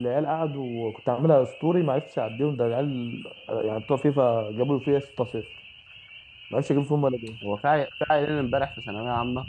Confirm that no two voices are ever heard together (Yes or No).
Yes